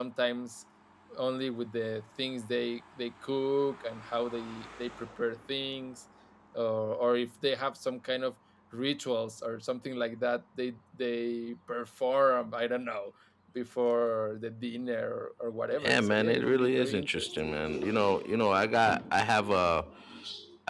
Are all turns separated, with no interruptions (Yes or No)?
No